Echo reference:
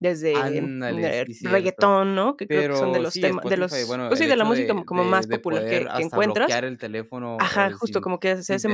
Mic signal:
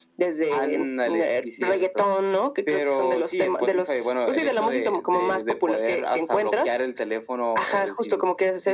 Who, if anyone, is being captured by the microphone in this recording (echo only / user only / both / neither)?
echo only